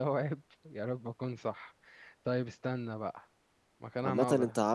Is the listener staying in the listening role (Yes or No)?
No